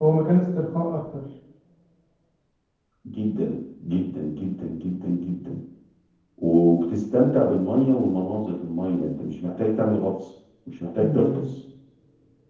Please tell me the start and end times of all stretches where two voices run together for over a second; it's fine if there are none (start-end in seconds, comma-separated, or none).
none